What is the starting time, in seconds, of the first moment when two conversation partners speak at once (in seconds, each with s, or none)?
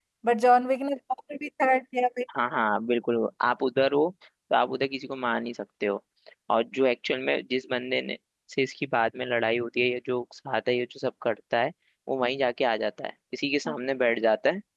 none